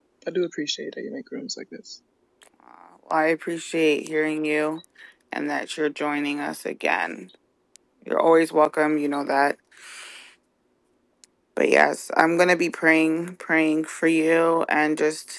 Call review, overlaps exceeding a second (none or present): none